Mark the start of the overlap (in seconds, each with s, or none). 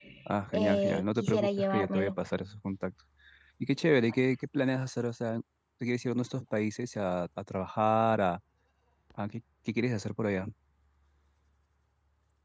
0.5 s